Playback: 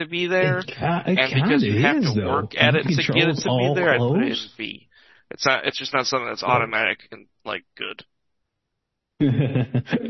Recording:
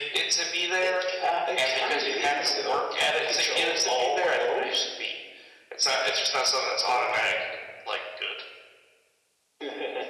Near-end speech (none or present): none